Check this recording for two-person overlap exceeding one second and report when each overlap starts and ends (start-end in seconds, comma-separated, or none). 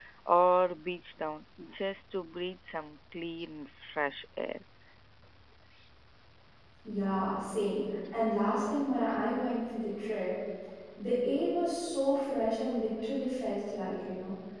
none